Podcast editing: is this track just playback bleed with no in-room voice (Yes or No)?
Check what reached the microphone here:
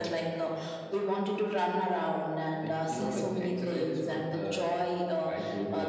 Yes